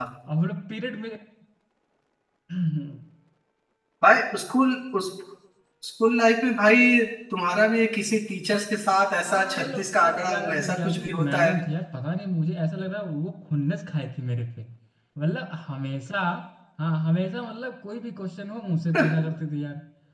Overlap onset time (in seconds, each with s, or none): 9.2 s